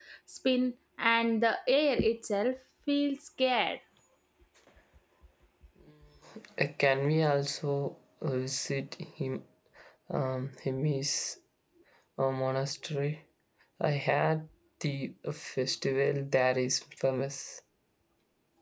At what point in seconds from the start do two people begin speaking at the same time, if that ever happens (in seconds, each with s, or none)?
none